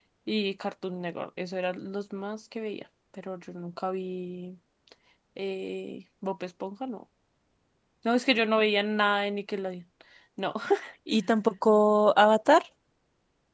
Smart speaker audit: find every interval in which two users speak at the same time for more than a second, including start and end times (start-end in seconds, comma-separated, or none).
none